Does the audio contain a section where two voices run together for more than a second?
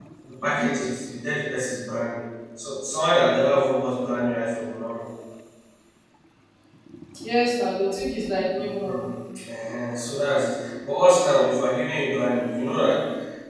No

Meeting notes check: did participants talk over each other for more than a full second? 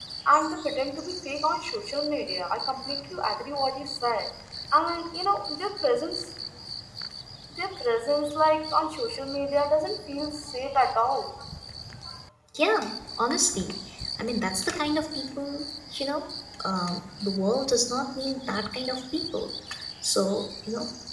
No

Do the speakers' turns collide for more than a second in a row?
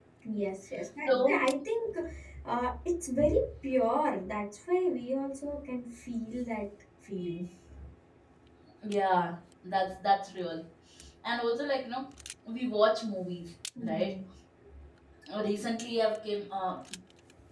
No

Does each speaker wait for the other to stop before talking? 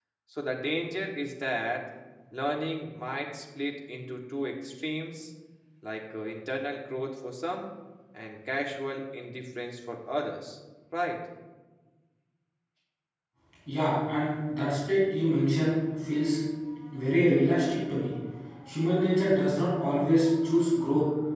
Yes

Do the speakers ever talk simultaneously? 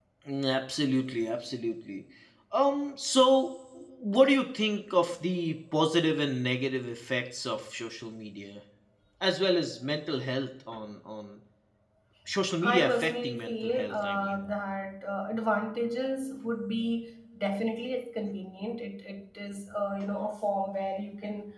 Yes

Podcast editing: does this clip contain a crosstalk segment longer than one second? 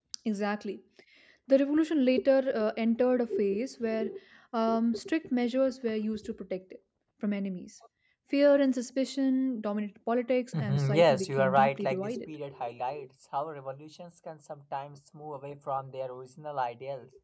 Yes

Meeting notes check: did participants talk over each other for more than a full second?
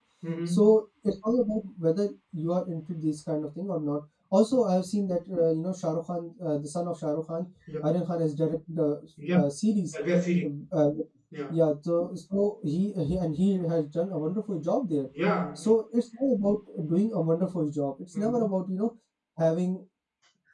No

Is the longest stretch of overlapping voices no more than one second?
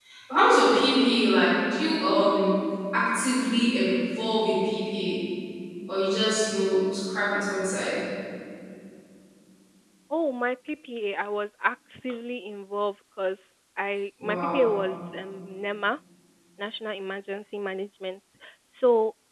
Yes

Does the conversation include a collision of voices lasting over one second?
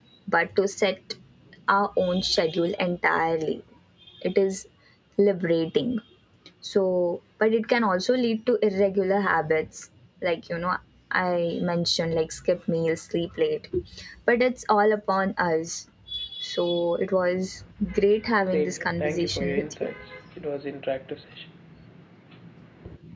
Yes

